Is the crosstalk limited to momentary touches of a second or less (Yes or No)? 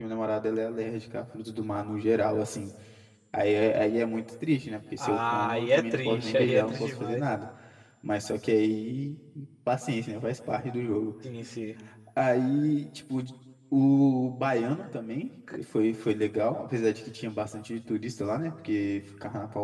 No